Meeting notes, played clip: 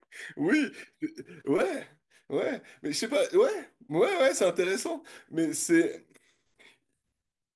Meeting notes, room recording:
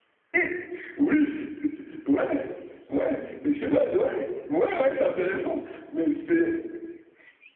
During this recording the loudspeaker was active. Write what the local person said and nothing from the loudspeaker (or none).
oui